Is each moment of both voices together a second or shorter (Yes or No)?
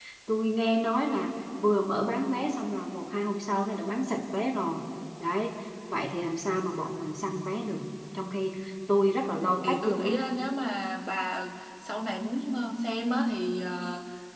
Yes